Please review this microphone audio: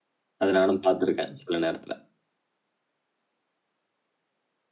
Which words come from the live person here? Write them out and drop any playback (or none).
அத நானும் பார்த்துருக்கேன் சில நேரத்துல.